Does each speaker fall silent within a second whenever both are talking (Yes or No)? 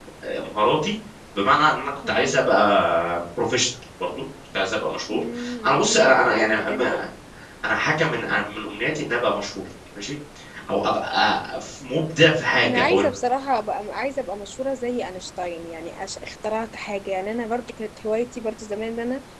No